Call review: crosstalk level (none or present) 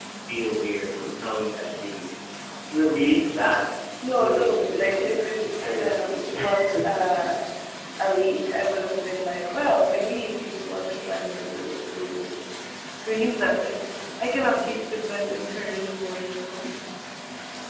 present